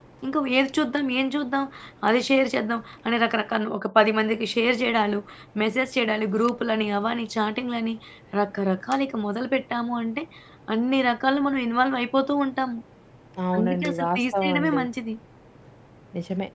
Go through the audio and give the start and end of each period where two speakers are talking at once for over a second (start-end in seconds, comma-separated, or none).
13.6-14.8